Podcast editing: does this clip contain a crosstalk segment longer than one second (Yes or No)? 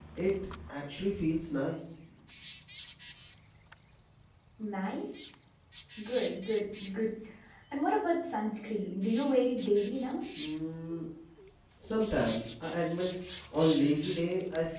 No